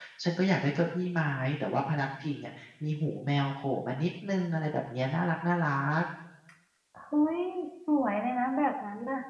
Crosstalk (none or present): none